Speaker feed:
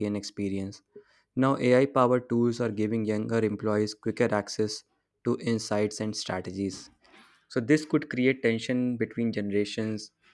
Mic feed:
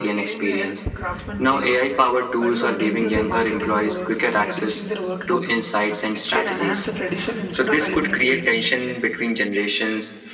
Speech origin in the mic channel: both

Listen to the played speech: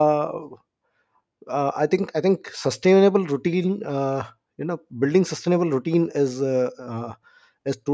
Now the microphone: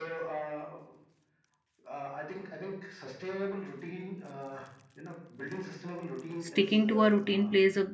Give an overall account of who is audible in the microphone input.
both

